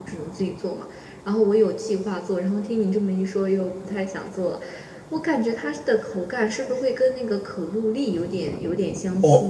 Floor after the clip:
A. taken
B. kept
A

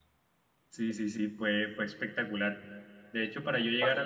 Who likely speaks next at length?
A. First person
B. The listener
A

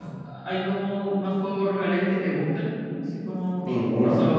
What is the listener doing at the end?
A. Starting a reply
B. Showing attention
A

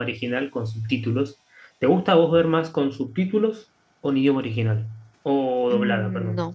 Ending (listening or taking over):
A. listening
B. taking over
B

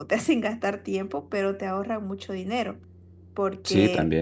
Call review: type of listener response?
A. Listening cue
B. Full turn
A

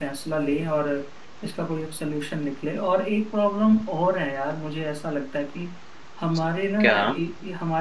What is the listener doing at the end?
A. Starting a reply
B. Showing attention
B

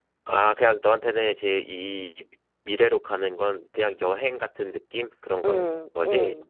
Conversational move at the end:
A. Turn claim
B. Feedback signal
A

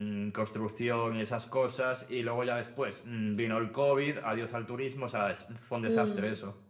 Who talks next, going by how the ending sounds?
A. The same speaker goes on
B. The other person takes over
B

